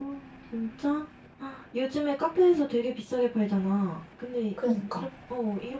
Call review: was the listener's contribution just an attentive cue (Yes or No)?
Yes